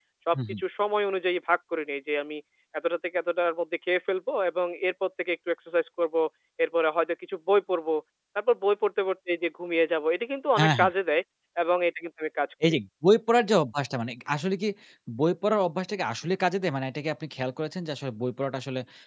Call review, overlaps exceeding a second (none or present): none